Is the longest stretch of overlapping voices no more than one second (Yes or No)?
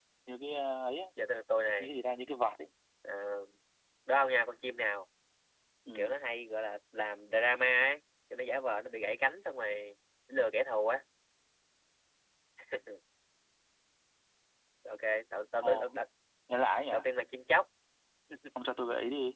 Yes